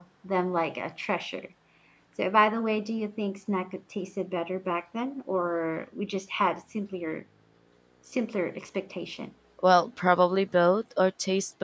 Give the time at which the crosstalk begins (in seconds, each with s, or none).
none